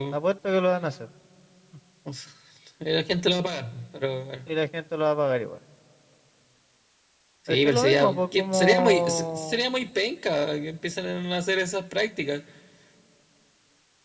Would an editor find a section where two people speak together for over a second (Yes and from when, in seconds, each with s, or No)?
Yes, from 7.5 s